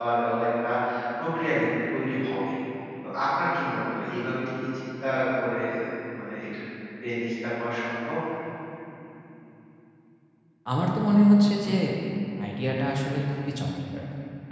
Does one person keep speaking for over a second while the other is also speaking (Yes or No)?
No